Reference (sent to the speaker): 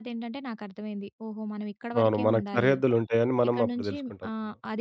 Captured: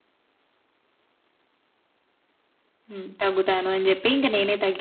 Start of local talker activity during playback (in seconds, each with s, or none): 2.9 s